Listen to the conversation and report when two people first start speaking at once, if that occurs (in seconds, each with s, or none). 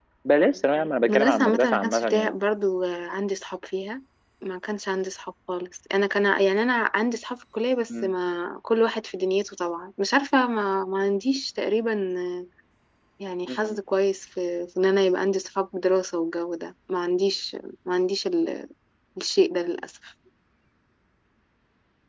1.1 s